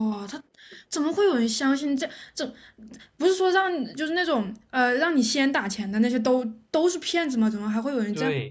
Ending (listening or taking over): taking over